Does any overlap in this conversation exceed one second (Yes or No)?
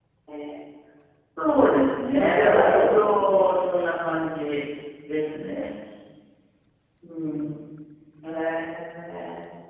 Yes